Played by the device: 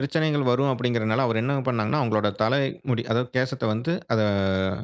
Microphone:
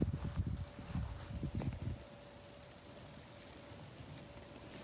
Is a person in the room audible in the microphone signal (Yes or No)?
No